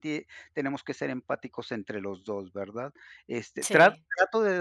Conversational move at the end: listening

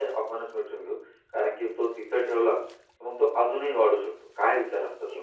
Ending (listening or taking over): taking over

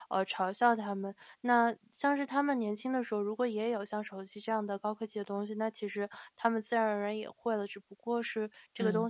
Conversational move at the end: listening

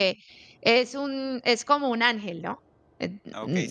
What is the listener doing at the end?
taking over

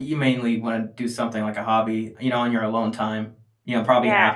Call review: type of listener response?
listening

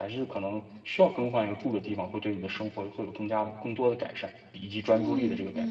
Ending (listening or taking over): taking over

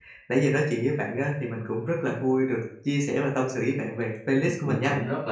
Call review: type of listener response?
taking over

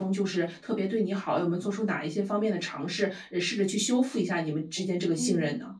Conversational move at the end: taking over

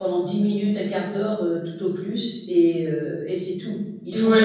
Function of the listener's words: taking over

